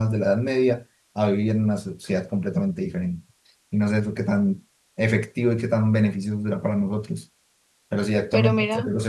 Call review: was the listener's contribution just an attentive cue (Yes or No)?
Yes